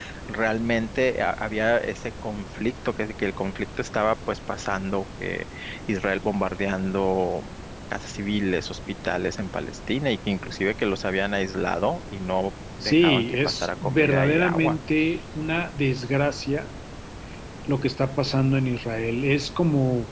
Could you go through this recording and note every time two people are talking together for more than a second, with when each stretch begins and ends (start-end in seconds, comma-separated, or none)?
12.8-14.8